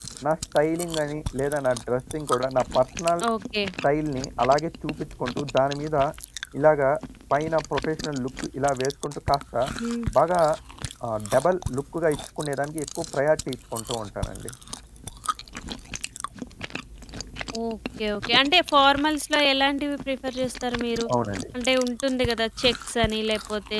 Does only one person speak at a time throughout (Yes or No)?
Yes